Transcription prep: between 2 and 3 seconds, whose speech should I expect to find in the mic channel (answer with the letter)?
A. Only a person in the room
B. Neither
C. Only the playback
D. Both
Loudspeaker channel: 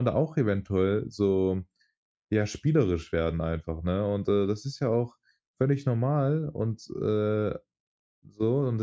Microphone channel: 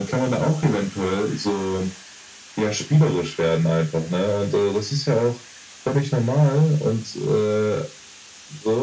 C